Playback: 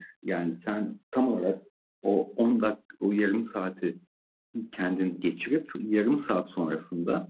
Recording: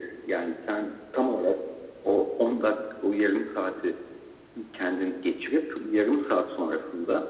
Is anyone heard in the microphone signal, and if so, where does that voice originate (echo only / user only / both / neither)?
echo only